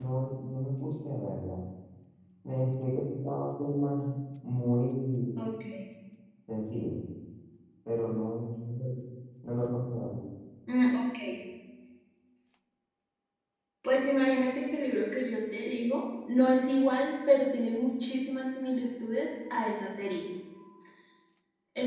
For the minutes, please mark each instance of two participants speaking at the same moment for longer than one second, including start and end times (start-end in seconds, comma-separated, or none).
none